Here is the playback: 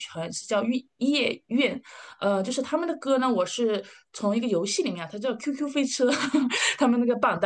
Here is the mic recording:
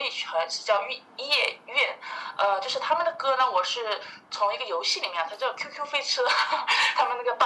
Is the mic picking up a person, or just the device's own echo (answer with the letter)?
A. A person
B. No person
B